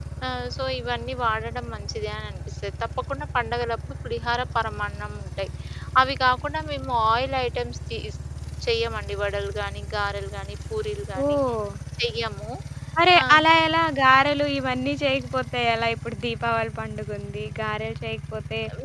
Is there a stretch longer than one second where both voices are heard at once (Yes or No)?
No